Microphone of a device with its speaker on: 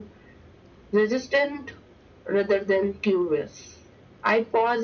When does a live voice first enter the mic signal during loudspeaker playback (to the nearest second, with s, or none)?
none